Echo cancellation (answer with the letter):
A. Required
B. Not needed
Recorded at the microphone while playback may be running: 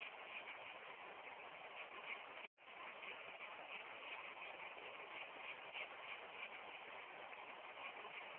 B